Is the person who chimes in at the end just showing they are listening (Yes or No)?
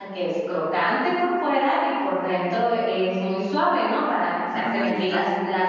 Yes